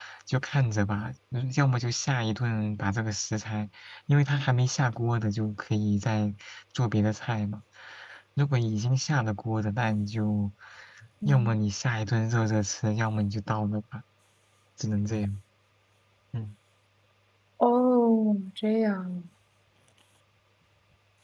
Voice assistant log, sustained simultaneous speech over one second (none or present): none